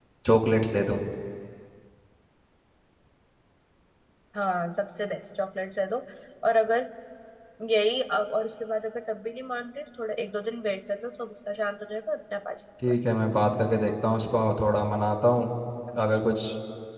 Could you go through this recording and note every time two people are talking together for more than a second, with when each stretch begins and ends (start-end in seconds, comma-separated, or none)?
none